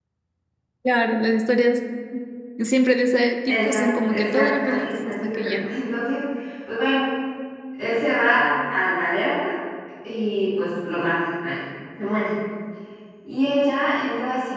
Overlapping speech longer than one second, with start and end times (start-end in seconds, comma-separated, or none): 3.5-5.7